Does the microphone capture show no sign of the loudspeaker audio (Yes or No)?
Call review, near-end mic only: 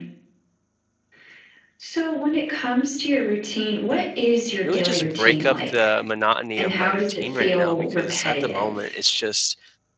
No